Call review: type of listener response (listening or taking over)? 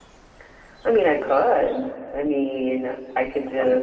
listening